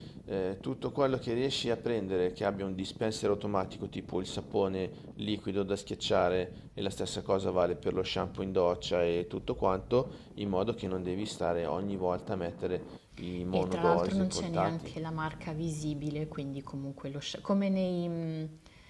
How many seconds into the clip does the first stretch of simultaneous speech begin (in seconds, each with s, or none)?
13.5 s